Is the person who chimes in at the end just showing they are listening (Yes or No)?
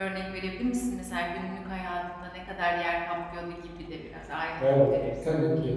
No